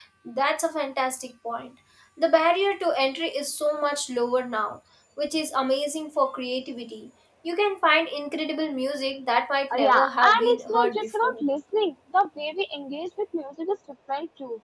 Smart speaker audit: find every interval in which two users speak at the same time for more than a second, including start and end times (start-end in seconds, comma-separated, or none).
9.7-11.4